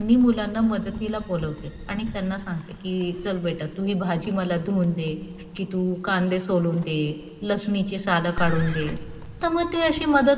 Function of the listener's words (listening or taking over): listening